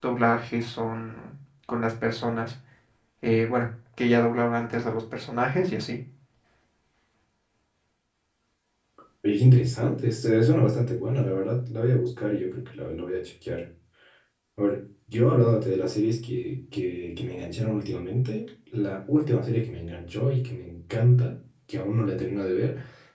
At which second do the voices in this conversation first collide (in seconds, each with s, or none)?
none